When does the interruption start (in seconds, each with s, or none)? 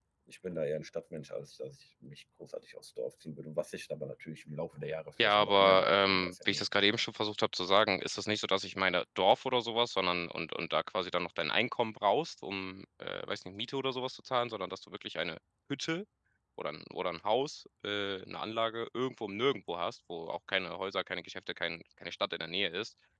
5.2 s